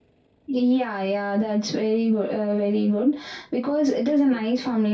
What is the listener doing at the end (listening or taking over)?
listening